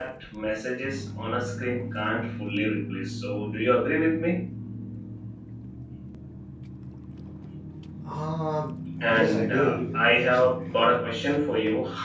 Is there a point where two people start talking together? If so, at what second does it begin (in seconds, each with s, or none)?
9.0 s